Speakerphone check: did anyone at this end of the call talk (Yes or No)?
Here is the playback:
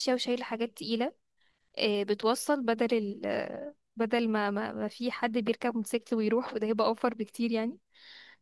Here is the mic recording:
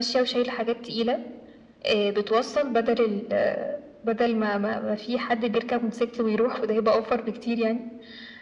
No